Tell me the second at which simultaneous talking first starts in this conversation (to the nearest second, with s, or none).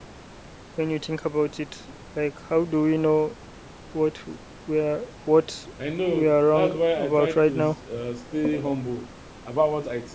6 s